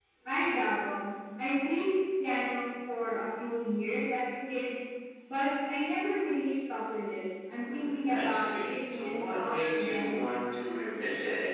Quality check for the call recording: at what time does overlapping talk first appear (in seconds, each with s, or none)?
7.6 s